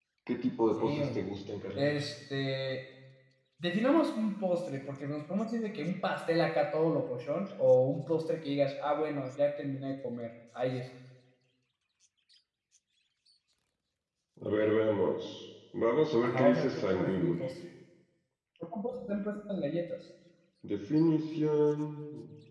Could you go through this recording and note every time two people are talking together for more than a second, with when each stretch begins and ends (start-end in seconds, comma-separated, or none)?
16.2-17.4